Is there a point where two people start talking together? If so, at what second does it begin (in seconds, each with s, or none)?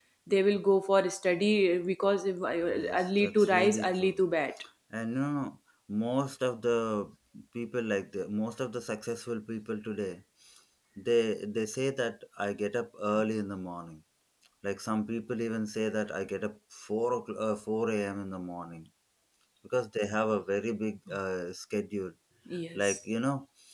2.8 s